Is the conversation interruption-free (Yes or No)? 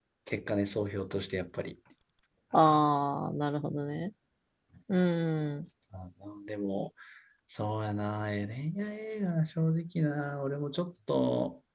Yes